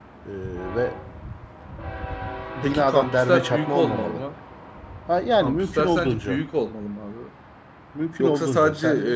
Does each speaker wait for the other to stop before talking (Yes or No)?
No